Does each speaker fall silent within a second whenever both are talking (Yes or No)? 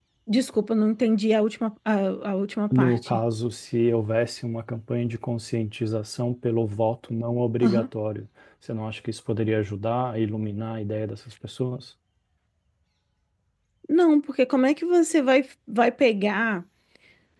Yes